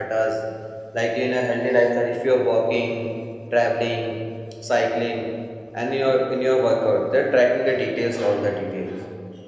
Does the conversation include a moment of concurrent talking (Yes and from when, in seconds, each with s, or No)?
No